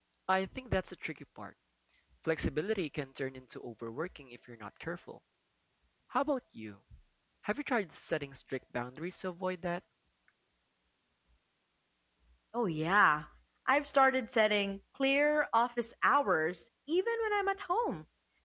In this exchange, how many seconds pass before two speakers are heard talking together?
none

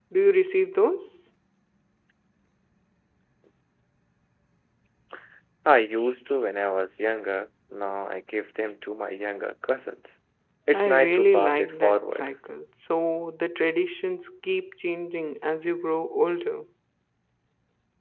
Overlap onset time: 10.7 s

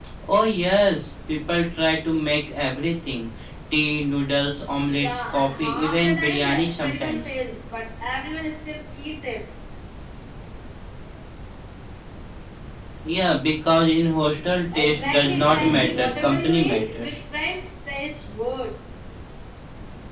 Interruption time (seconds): 5.0 s

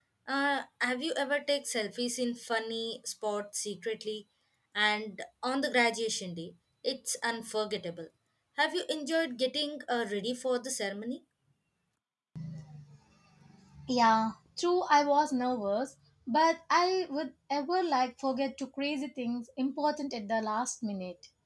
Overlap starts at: none

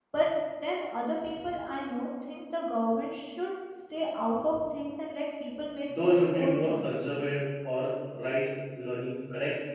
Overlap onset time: 5.9 s

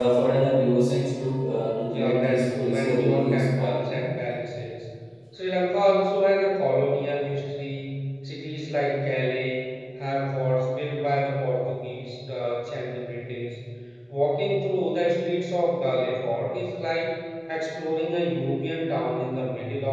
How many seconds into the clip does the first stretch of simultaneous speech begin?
1.9 s

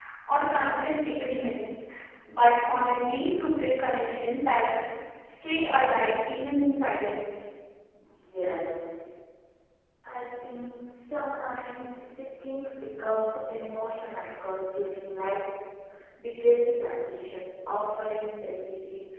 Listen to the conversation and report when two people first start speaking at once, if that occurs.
none

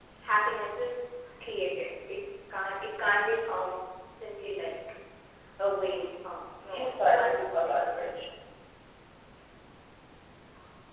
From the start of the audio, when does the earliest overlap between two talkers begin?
6.7 s

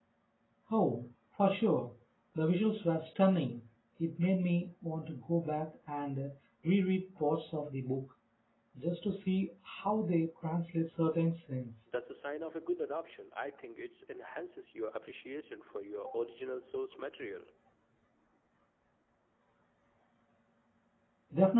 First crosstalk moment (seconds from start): none

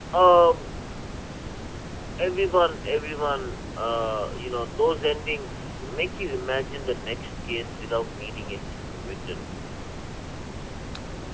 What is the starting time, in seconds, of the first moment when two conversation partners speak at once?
none

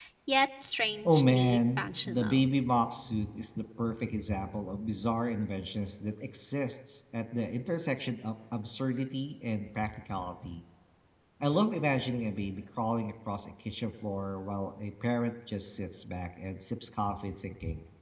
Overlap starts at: 1.0 s

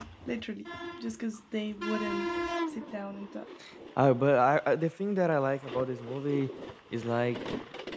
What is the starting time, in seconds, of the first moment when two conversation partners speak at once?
none

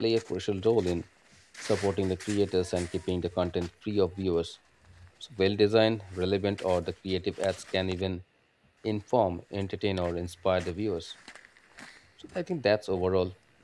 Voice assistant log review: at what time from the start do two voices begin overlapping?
none

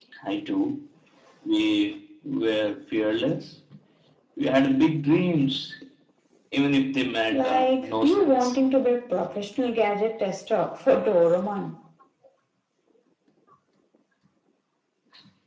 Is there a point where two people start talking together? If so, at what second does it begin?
7.3 s

